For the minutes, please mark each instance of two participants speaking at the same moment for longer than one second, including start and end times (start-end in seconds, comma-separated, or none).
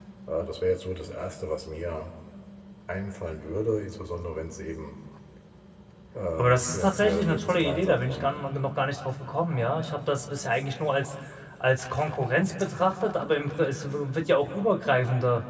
6.4-8.3